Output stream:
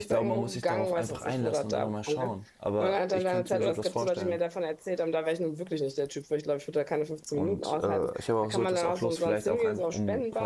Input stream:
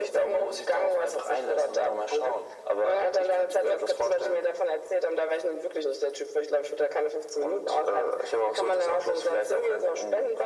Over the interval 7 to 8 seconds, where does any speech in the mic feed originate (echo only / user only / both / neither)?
echo only